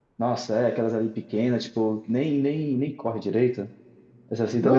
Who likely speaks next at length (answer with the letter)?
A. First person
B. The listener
B